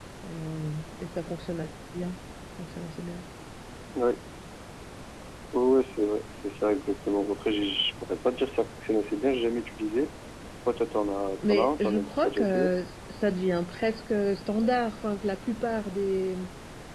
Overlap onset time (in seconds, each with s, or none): 11.5 s